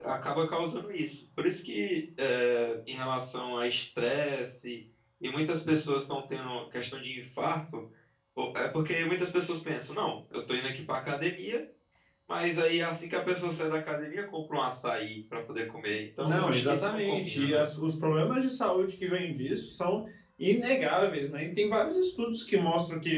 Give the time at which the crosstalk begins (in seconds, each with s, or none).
16.2 s